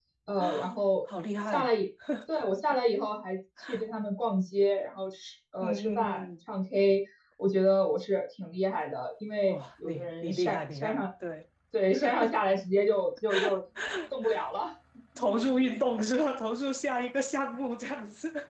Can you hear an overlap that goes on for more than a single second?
Yes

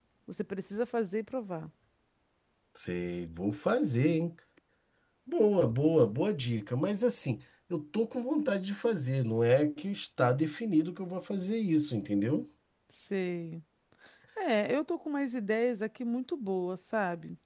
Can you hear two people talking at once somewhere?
No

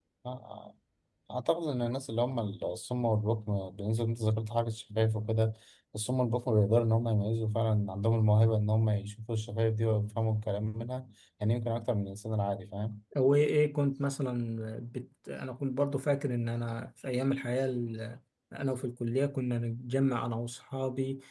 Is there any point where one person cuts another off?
No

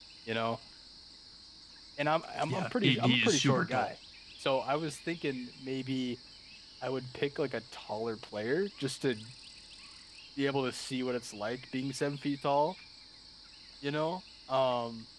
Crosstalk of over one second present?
Yes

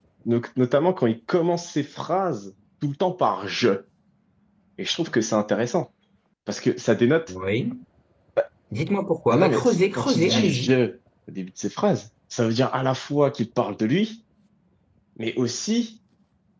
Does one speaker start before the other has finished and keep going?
Yes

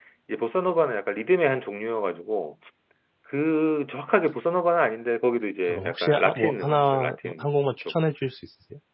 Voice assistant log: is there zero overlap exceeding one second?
No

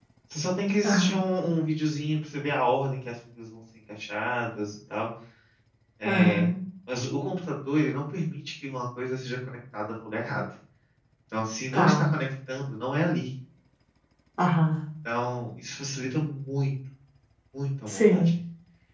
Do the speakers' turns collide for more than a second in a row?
No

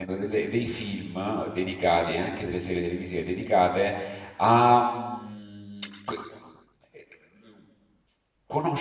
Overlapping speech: No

